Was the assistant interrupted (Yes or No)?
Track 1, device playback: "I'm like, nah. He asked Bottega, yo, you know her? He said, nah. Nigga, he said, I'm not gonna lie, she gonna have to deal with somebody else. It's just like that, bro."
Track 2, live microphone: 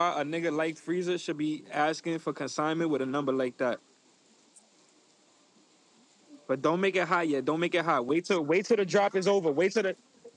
Yes